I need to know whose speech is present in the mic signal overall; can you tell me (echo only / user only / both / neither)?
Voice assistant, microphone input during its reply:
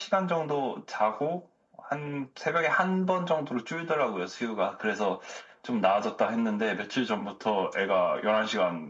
echo only